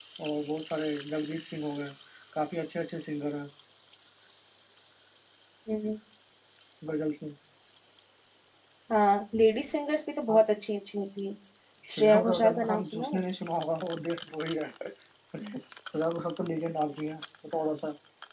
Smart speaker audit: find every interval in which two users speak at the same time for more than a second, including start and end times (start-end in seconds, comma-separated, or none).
11.9-13.2